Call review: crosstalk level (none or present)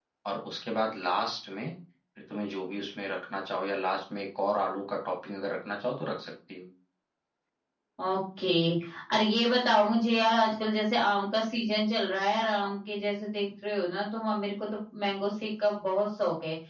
none